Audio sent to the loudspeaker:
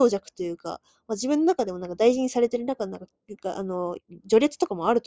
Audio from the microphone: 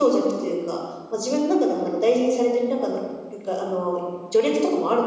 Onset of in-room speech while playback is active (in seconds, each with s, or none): none